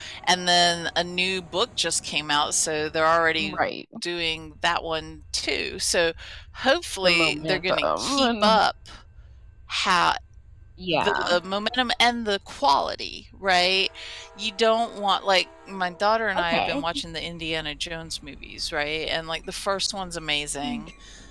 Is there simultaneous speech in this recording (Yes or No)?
Yes